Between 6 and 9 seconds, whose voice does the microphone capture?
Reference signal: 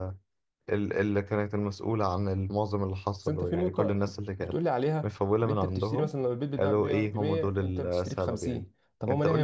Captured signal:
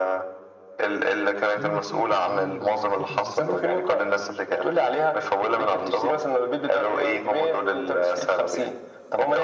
echo only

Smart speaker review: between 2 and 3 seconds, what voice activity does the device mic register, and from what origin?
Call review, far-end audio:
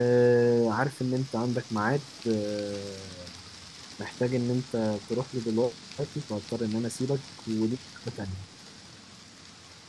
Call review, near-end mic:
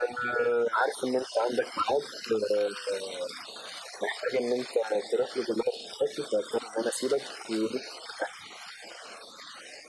echo only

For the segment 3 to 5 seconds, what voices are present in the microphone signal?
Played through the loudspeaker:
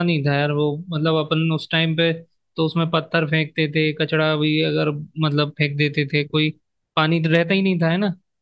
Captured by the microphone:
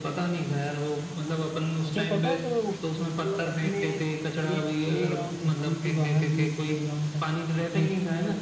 both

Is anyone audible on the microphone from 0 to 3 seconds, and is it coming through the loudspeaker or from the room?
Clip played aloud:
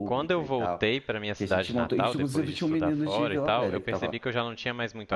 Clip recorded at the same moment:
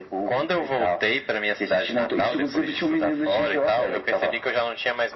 echo only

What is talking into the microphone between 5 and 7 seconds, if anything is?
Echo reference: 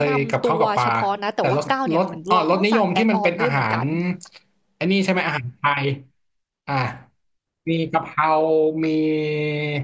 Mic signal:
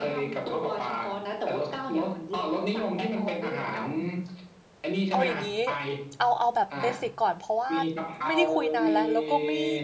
both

